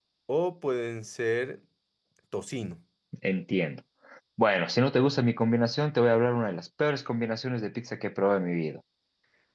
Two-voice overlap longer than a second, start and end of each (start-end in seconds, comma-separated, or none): none